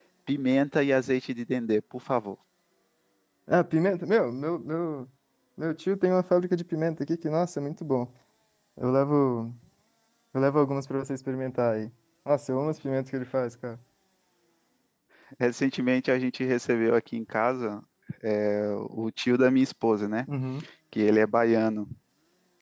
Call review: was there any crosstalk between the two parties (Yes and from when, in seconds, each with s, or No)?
No